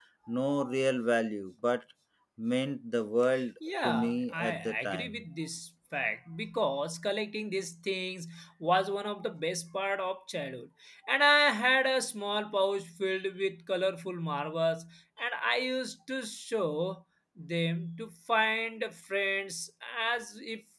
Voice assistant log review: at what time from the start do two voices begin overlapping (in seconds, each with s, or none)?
3.8 s